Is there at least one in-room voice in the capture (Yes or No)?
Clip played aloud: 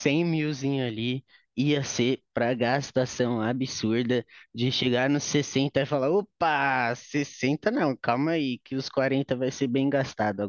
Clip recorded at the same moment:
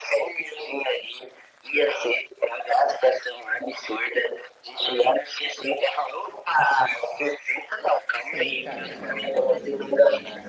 Yes